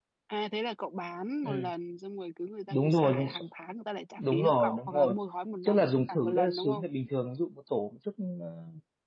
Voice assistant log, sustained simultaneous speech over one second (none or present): present